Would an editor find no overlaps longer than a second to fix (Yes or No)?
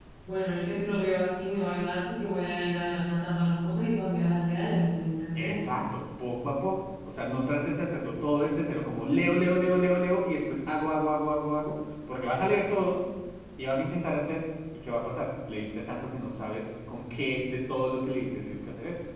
Yes